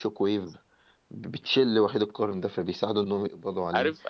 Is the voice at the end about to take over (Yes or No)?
Yes